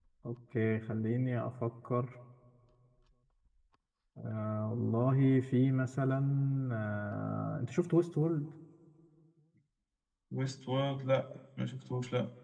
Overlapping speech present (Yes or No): No